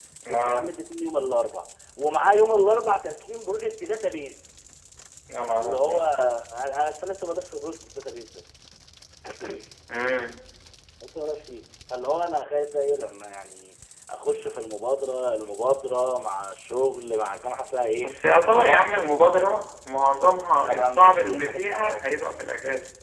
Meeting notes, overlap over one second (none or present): present